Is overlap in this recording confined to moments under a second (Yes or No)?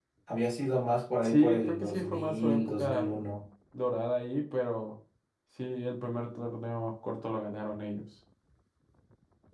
No